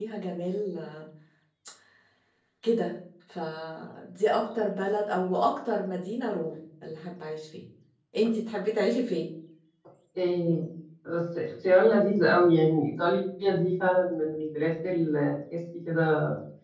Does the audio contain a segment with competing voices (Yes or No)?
No